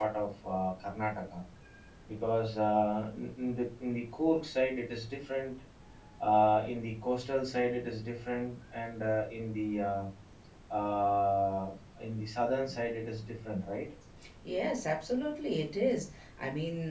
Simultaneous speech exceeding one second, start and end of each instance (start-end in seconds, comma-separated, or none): none